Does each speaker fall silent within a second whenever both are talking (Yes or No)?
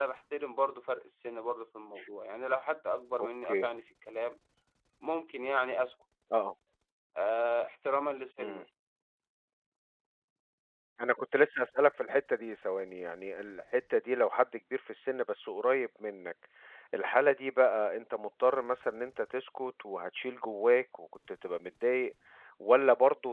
Yes